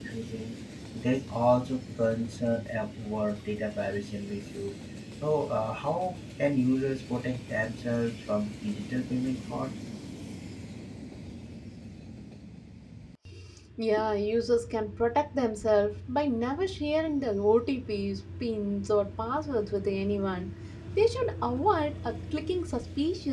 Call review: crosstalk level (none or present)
none